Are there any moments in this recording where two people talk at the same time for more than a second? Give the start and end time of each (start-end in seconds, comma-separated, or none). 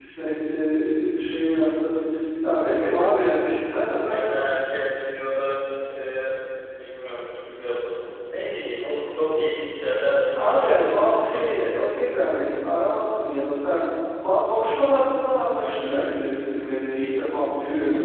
10.3-12.0